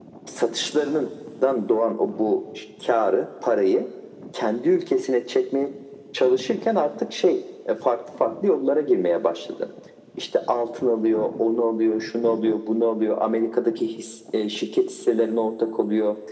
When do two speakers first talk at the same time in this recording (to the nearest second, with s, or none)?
none